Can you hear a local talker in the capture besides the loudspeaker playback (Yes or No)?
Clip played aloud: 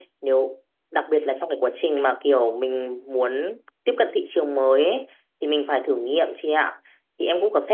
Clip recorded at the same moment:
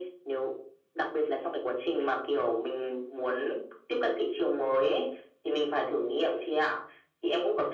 No